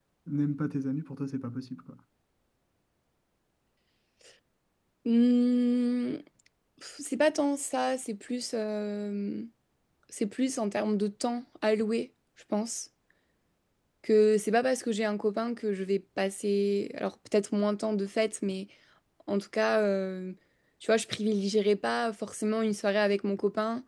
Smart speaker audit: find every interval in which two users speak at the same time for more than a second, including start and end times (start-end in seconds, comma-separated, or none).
none